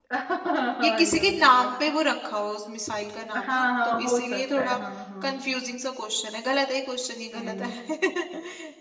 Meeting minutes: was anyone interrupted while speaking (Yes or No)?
Yes